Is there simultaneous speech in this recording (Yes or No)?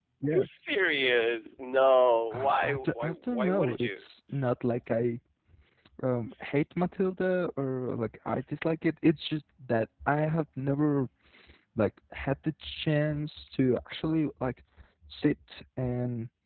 Yes